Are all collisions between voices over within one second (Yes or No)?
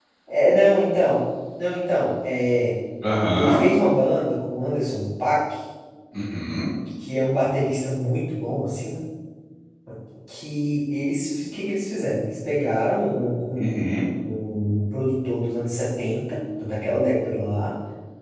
Yes